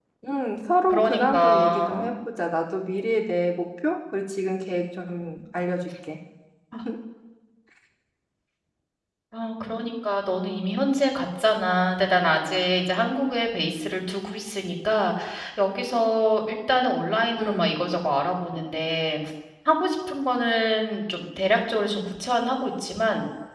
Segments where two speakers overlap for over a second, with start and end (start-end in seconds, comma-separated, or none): 0.9-2.1